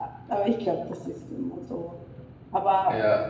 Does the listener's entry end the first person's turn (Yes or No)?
No